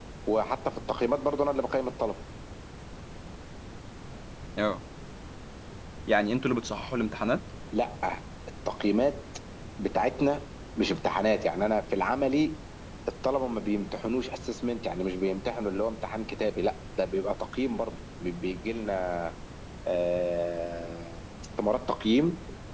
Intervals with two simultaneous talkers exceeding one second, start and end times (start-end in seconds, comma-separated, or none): none